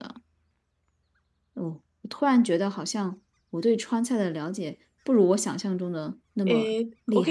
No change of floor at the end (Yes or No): No